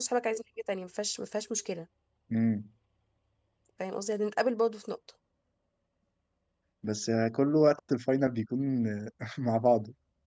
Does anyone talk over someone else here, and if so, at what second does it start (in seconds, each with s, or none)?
none